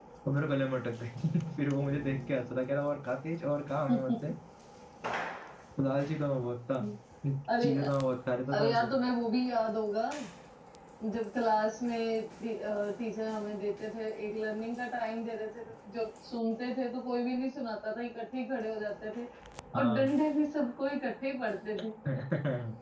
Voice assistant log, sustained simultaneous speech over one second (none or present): none